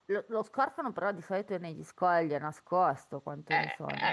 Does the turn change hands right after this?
Yes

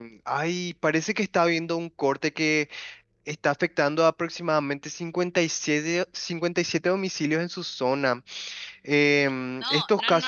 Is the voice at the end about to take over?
Yes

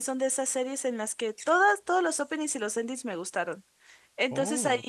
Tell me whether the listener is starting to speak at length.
No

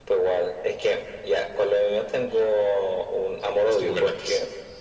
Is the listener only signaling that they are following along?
Yes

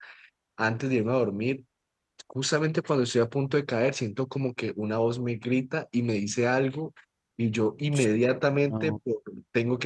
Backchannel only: Yes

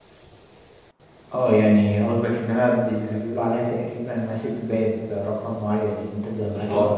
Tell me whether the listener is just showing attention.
Yes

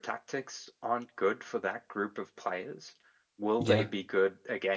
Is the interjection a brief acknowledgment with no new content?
Yes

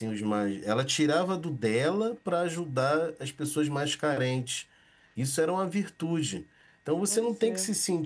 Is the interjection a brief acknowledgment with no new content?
Yes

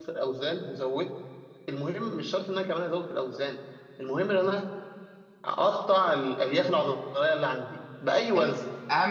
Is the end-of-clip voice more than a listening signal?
Yes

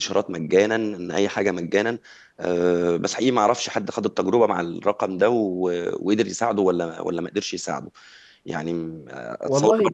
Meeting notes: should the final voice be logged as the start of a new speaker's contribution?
No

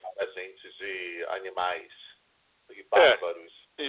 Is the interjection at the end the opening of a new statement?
Yes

